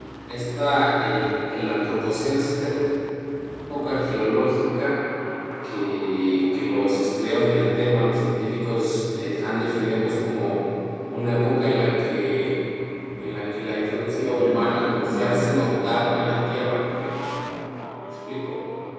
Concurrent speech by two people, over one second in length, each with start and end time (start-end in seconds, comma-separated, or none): 14.3-15.7